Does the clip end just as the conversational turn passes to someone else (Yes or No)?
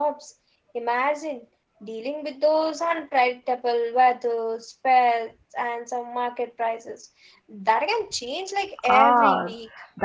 Yes